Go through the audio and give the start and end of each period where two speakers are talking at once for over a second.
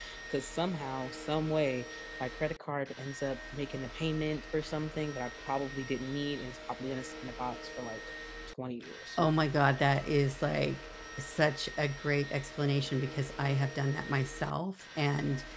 none

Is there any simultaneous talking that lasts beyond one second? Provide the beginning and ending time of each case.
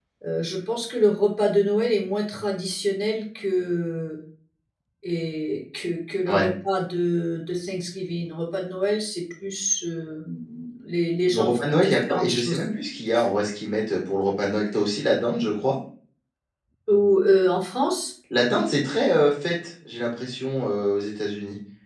11.3-12.6

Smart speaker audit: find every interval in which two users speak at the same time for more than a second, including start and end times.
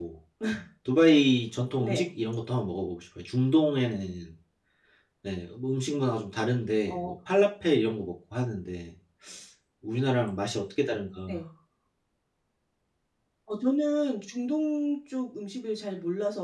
none

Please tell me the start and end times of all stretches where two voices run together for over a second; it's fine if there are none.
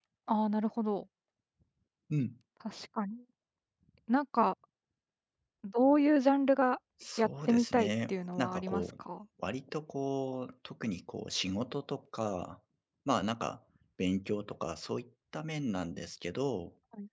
7.2-8.8

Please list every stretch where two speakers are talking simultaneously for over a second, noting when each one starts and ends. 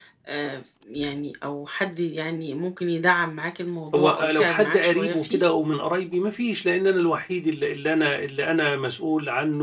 3.9-5.4

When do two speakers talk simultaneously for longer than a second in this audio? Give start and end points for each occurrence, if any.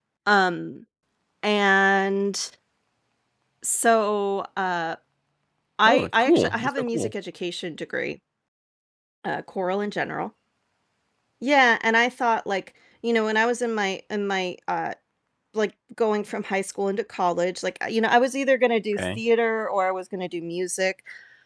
5.9-7.1

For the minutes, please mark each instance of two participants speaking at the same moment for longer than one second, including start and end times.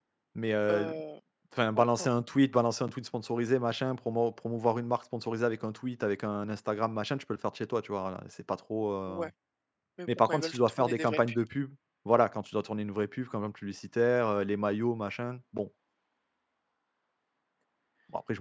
10.1-11.3

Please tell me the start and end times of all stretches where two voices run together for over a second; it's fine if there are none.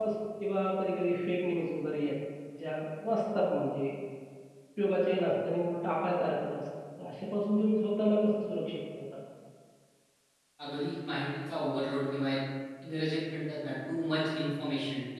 none

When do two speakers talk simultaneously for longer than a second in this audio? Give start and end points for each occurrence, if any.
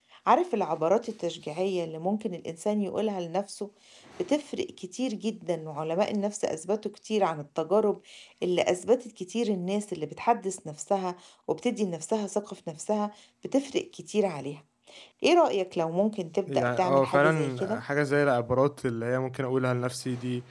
16.4-17.8

